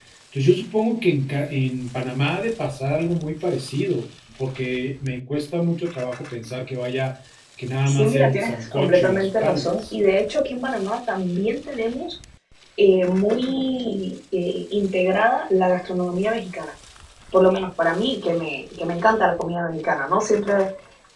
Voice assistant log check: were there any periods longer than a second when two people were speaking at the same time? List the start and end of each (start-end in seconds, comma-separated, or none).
7.9-9.9